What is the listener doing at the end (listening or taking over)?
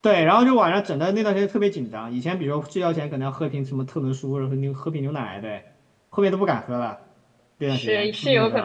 taking over